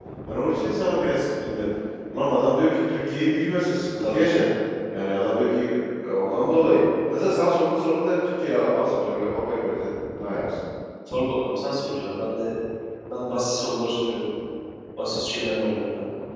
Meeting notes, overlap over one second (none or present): none